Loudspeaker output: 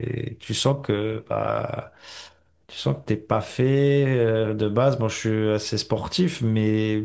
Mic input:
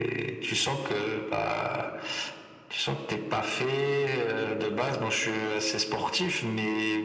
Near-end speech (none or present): none